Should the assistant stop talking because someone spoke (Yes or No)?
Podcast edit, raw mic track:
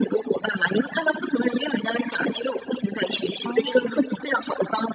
Yes